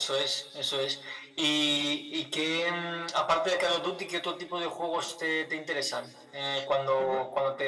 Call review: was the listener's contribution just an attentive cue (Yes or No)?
Yes